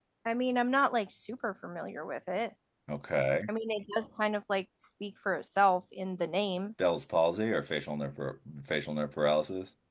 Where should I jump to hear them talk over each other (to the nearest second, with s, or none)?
none